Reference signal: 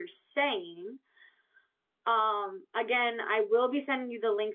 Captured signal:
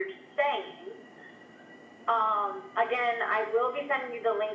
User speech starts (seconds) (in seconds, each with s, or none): none